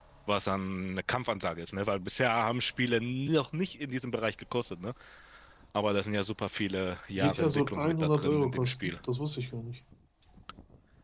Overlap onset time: 7.2 s

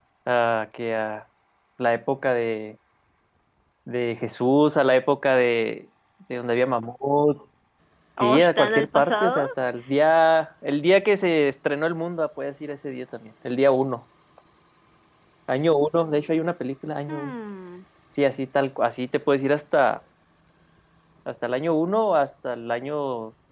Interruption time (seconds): 8.2 s

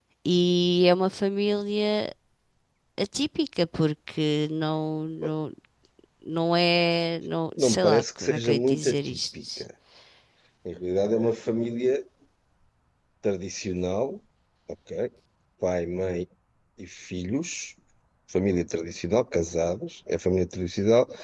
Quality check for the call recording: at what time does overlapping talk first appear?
7.5 s

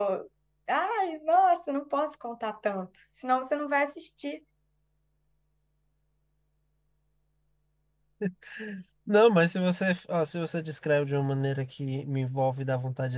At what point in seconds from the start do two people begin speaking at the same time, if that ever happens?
none

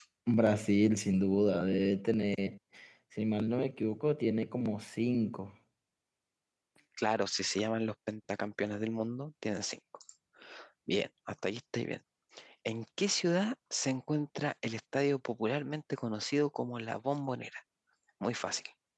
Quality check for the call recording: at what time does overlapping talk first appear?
none

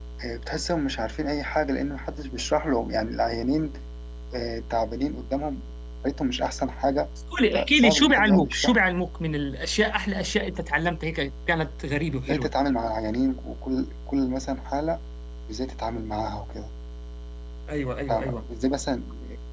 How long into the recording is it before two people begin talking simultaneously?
7.5 s

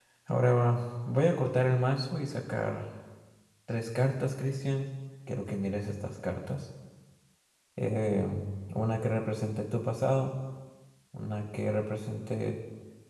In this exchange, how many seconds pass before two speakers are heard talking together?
none

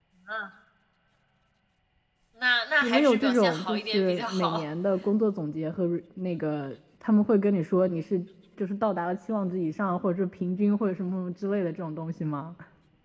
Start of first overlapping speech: 2.8 s

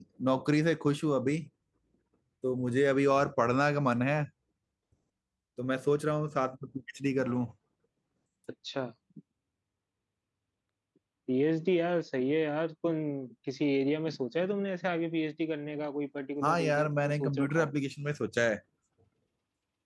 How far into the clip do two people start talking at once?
16.4 s

